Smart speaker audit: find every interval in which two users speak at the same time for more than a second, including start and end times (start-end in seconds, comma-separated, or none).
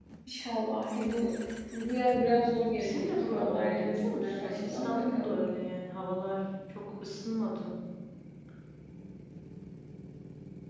2.8-5.4